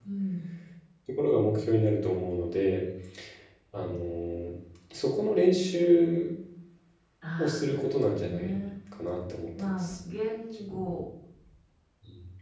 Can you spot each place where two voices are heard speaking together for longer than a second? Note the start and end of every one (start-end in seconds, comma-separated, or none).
7.4-8.6